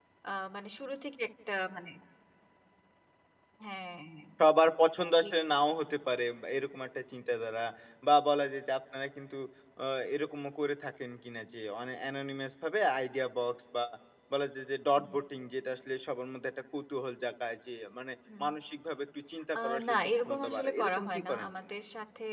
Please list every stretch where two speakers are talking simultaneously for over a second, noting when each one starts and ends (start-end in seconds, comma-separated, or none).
19.6-21.5